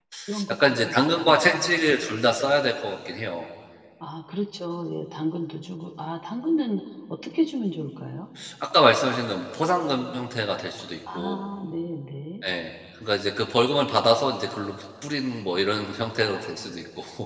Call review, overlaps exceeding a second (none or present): present